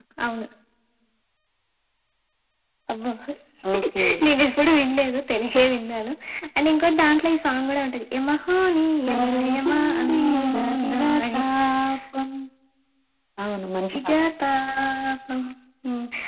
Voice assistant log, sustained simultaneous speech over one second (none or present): present